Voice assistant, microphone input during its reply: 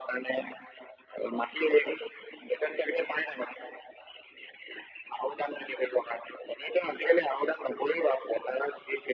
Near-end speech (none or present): none